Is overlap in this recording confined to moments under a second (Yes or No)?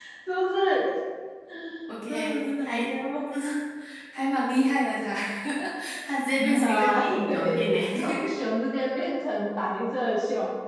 No